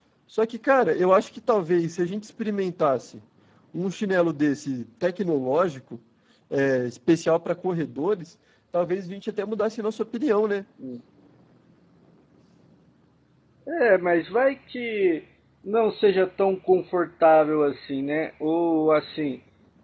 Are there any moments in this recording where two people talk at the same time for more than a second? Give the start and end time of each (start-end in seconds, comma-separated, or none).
none